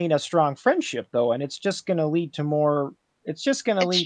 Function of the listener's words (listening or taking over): listening